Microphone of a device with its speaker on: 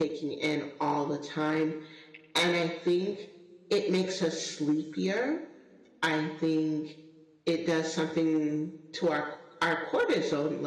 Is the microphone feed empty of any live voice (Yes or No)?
No